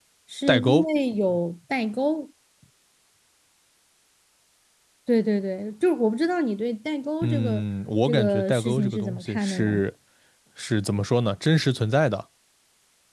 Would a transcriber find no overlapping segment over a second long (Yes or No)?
No